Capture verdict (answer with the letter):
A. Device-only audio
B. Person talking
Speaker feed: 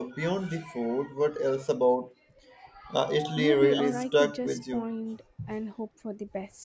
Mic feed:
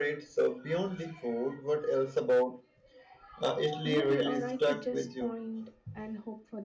A